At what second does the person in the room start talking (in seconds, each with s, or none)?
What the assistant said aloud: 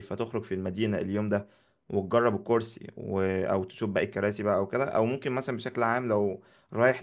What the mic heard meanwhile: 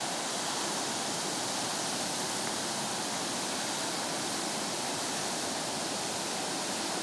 none